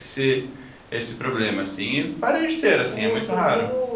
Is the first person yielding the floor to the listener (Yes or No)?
Yes